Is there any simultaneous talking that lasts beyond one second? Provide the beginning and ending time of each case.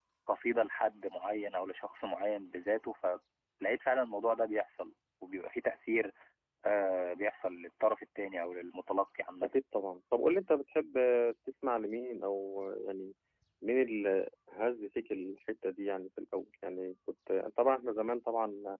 none

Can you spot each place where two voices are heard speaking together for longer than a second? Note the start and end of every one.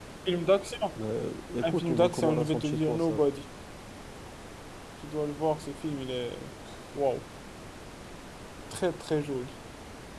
1.6-3.2

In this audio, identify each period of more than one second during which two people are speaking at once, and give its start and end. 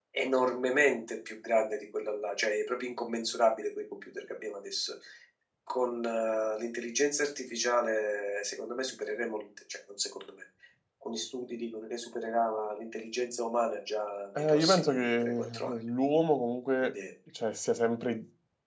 14.4-15.7

